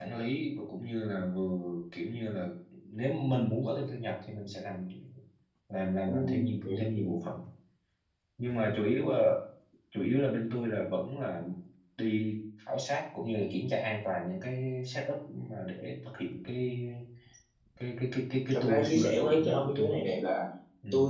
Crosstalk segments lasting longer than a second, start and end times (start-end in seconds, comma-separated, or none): 18.5-19.9